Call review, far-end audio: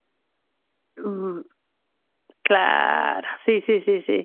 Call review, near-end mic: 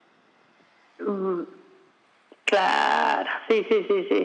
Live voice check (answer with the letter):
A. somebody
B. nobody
B